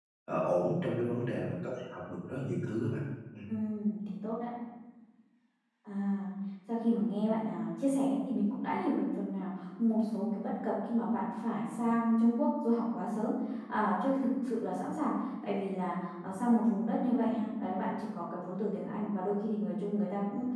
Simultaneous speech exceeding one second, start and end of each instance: none

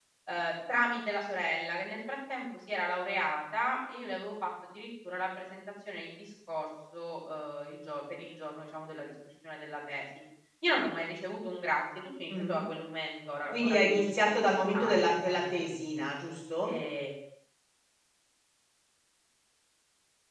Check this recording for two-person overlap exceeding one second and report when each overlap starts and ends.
13.5-15.6

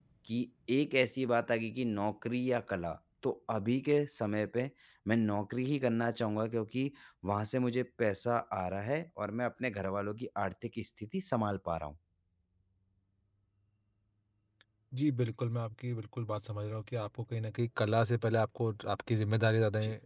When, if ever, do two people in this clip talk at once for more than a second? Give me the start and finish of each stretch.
none

